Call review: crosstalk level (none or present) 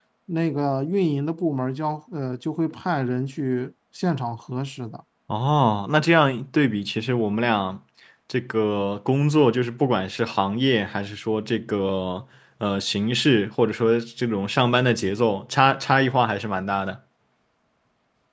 none